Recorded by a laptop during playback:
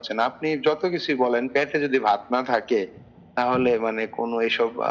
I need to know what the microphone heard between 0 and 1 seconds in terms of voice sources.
echo only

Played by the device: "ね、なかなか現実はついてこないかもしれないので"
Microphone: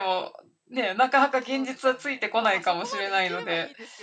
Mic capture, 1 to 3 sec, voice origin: both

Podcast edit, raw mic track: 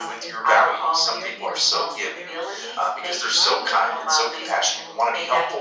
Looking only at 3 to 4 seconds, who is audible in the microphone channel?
both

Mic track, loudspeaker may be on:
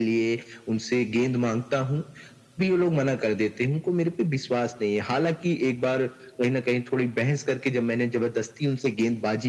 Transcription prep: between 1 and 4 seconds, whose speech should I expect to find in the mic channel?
echo only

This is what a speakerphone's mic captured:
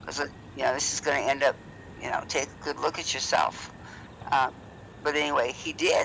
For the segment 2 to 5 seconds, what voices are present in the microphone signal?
echo only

